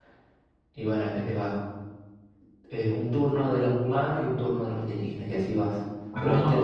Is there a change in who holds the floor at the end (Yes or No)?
Yes